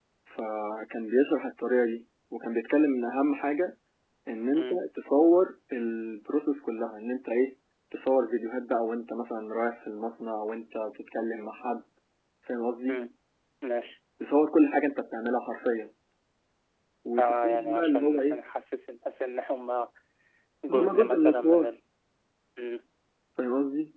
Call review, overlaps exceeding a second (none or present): present